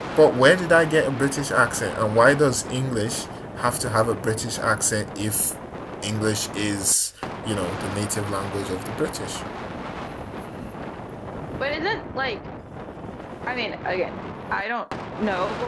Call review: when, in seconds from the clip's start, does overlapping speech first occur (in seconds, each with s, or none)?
none